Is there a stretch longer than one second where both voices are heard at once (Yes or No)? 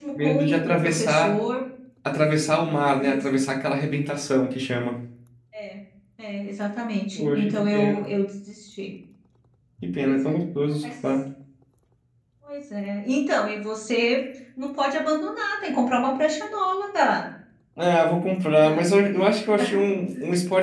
Yes